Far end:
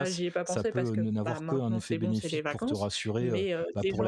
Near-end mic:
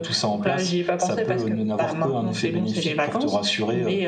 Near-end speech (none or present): none